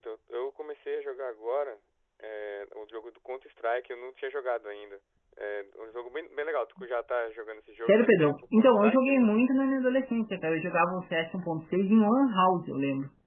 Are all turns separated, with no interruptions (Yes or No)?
No